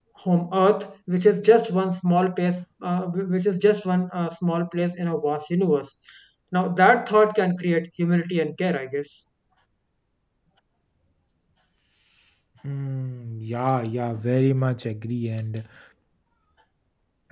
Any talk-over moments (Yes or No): No